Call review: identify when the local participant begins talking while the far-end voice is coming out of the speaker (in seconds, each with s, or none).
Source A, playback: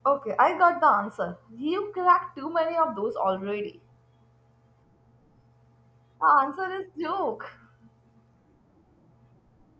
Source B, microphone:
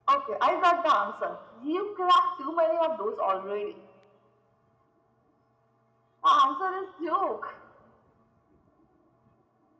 none